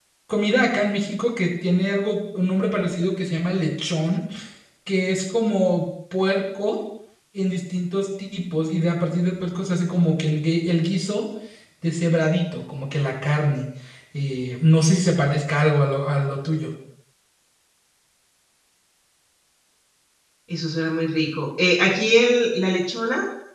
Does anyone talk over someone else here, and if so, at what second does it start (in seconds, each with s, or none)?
none